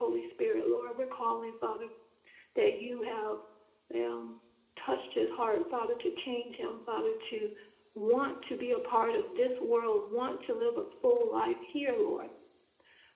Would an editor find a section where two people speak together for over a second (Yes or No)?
No